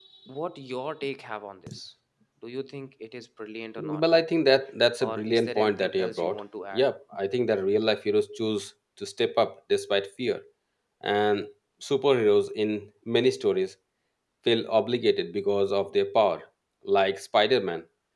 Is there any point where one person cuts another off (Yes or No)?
Yes